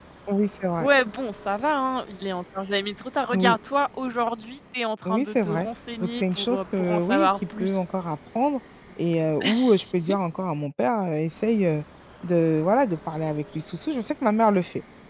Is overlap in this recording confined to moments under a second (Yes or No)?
No